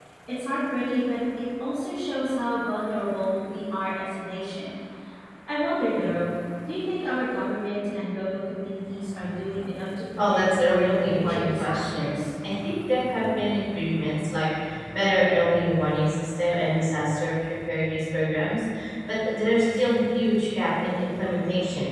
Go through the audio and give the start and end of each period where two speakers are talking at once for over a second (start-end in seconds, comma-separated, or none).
10.3-12.1